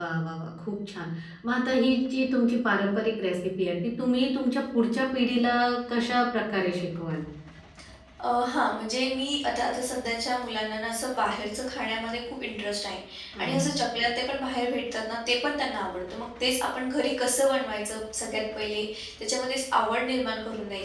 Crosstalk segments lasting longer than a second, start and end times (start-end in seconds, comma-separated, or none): none